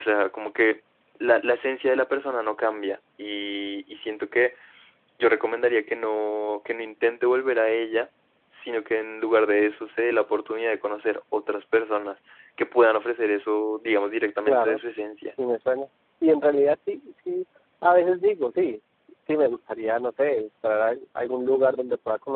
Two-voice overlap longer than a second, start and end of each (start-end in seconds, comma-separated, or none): none